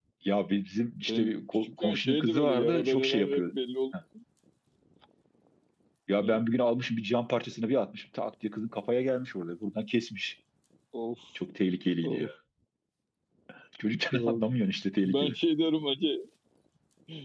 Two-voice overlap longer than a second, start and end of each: 1.1-3.4

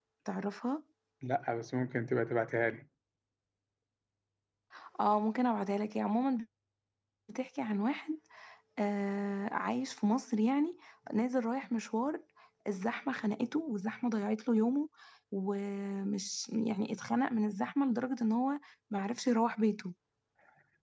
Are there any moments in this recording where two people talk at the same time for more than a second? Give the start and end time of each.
none

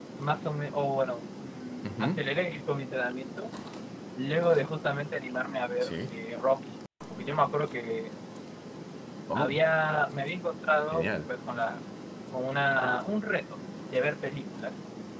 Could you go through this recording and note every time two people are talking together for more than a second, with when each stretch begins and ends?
none

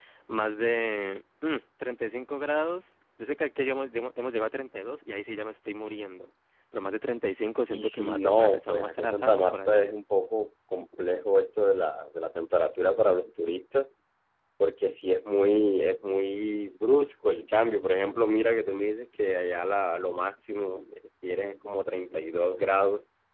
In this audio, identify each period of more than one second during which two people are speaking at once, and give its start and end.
7.7-9.9

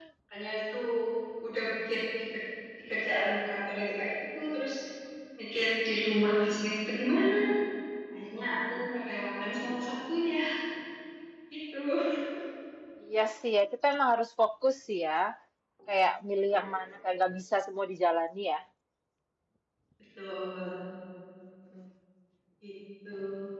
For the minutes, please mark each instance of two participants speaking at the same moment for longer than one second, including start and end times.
none

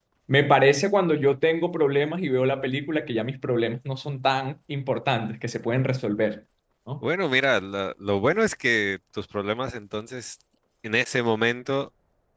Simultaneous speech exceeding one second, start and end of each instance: none

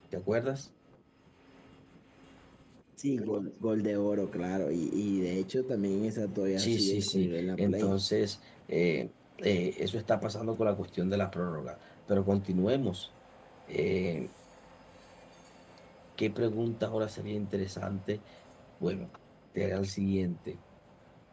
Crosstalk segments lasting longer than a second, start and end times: 6.6-8.0

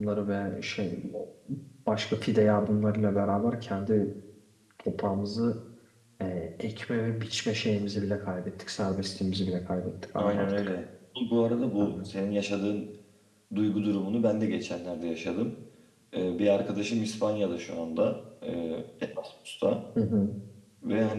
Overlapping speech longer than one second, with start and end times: none

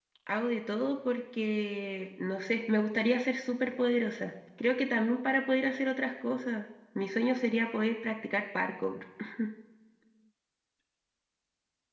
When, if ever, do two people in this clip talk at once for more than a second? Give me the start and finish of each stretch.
none

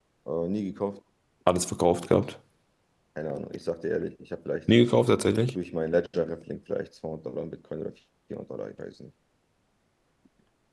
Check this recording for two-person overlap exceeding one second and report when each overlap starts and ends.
none

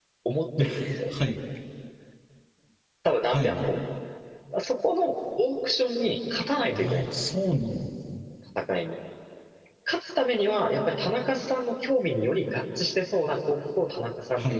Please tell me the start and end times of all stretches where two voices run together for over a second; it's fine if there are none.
none

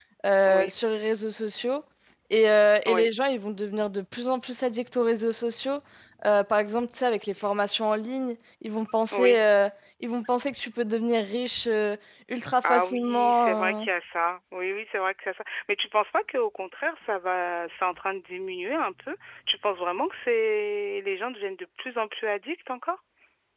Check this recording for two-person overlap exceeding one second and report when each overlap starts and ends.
12.6-13.8

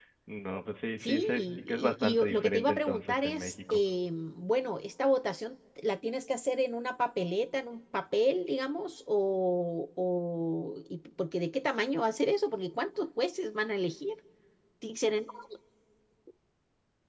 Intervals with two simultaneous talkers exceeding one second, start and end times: 1.0-3.8

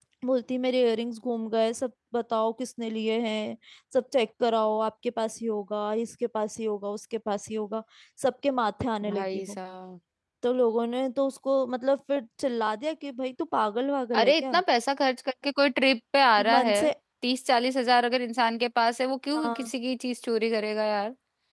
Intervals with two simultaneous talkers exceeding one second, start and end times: none

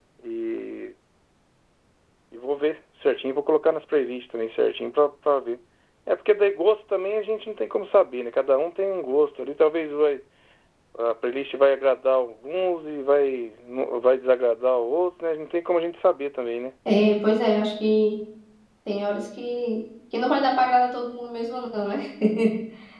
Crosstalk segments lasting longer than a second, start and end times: none

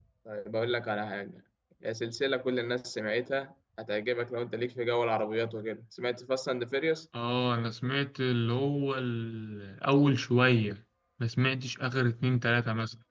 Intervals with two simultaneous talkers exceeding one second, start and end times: none

